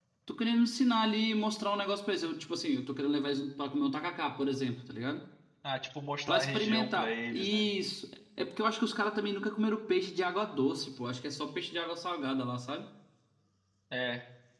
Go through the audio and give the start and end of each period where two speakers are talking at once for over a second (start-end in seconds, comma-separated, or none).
6.3-7.6